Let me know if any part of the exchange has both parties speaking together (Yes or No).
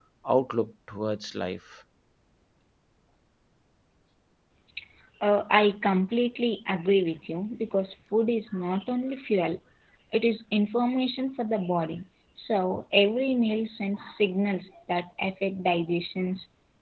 No